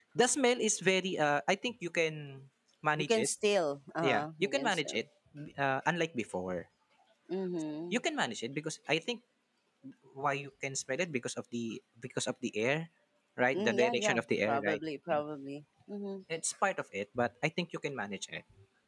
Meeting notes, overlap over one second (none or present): present